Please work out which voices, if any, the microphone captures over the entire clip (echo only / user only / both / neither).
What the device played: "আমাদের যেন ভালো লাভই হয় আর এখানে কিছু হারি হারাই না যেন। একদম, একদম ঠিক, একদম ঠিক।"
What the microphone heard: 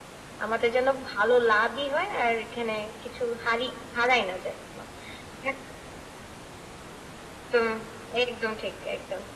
echo only